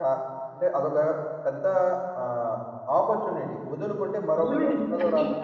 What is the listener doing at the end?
taking over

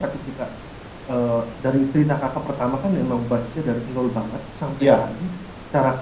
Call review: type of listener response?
listening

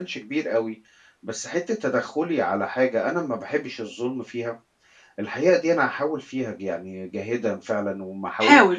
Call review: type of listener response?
listening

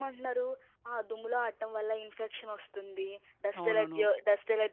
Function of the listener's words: listening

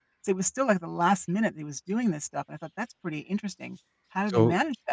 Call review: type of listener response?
taking over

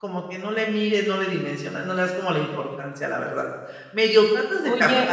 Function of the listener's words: taking over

